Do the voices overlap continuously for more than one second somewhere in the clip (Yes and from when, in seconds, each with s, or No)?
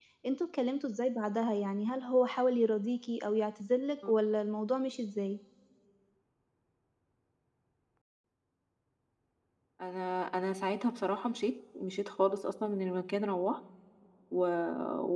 No